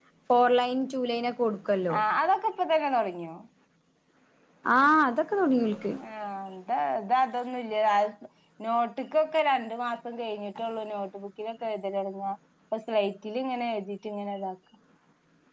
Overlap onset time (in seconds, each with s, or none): none